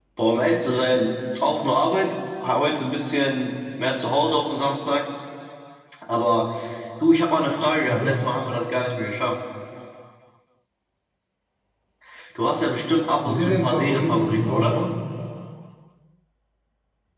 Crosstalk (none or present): present